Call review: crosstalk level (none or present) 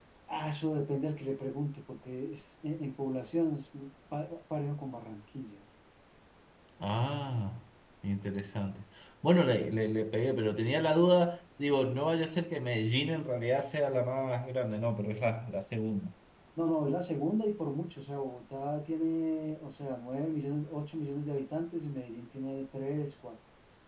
none